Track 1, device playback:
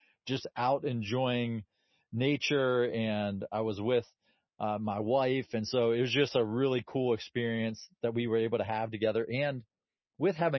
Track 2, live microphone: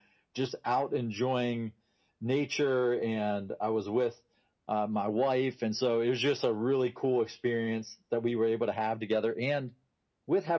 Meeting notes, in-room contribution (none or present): none